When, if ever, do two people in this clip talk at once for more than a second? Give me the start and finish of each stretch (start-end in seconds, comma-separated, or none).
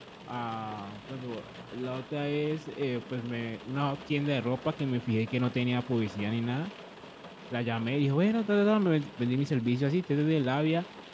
none